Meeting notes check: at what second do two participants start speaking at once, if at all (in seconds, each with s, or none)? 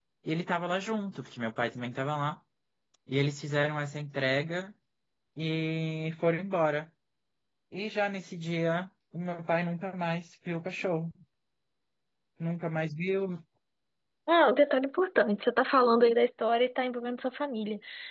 none